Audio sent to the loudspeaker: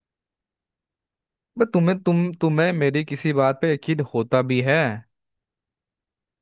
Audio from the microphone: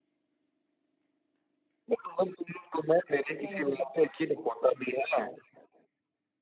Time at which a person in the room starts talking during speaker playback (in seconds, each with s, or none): 3.4 s